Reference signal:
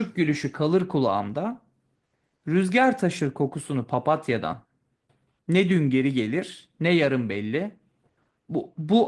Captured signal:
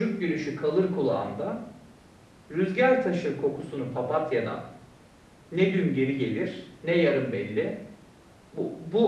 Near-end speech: none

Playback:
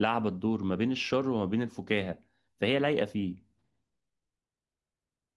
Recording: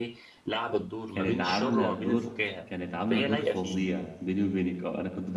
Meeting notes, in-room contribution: present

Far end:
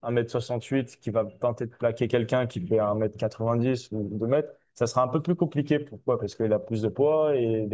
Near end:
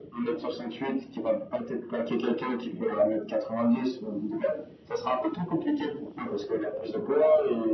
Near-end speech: none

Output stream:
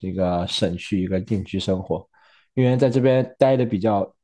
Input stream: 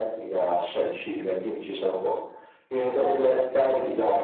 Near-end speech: present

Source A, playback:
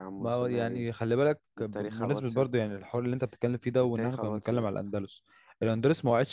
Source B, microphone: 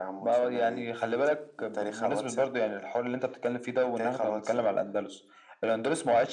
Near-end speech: none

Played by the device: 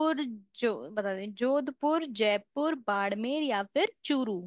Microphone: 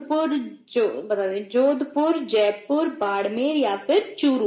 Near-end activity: none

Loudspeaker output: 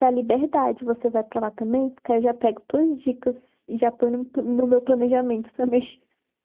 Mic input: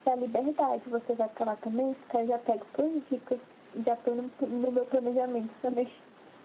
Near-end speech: none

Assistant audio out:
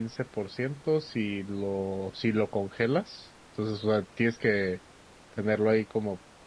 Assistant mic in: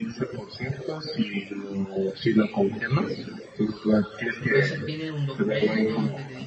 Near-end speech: present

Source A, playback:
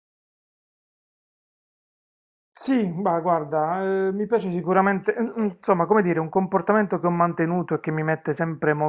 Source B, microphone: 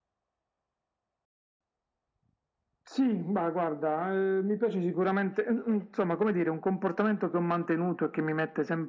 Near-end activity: none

